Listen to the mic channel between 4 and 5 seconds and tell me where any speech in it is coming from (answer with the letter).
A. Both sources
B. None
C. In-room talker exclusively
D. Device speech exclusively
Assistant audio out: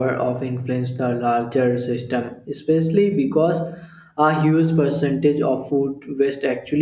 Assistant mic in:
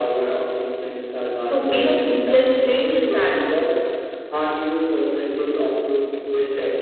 D